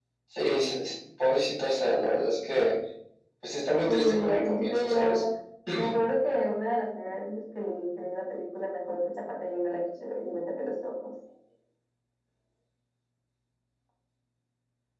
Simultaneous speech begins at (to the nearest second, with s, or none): 4 s